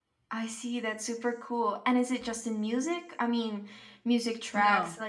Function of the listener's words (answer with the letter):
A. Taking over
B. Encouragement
B